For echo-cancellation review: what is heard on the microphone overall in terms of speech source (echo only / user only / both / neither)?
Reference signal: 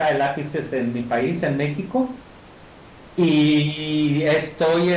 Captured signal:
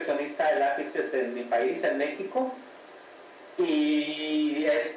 echo only